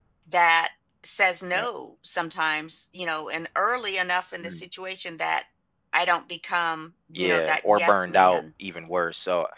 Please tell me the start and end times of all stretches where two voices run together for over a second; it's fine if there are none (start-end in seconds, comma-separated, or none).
7.2-8.4